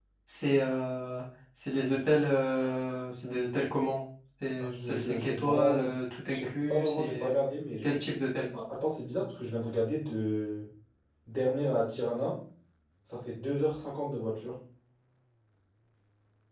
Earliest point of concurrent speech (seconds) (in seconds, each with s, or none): 4.6 s